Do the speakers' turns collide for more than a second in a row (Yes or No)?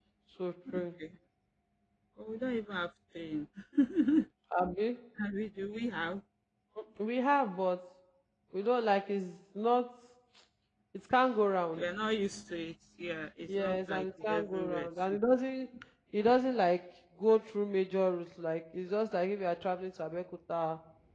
Yes